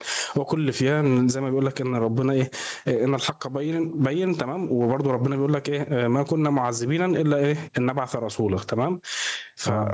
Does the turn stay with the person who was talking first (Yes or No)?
Yes